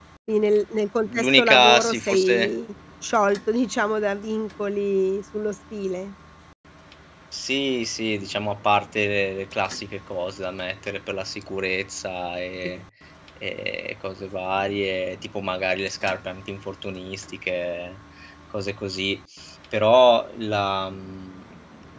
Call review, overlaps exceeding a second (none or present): present